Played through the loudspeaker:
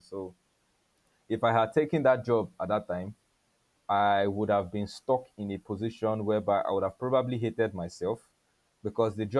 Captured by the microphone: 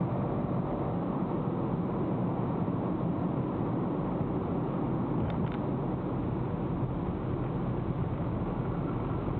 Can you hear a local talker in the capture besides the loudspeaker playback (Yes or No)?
No